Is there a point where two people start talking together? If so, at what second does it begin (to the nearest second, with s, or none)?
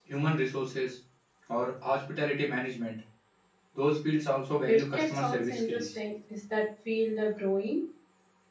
5 s